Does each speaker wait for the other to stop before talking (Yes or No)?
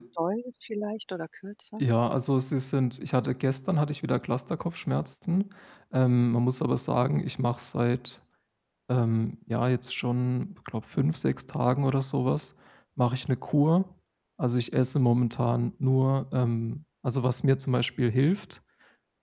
Yes